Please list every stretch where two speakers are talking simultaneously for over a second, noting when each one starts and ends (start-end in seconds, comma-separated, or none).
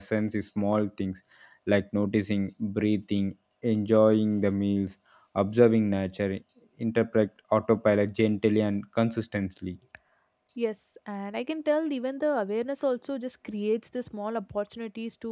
none